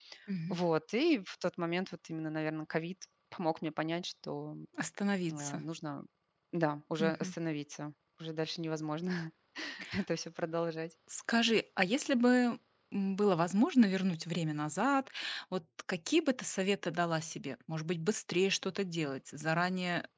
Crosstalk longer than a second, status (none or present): none